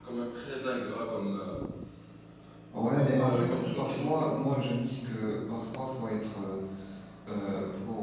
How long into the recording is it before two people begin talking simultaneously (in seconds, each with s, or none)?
2.9 s